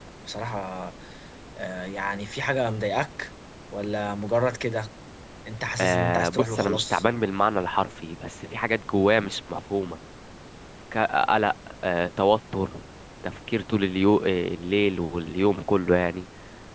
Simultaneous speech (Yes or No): Yes